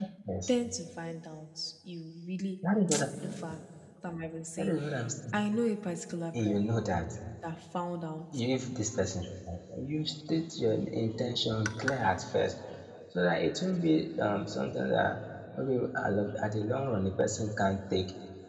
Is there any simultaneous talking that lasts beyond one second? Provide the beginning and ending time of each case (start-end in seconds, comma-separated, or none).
none